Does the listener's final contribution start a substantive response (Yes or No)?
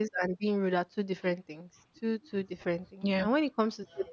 No